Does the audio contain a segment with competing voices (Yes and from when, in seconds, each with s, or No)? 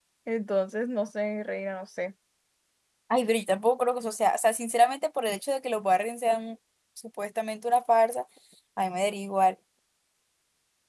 No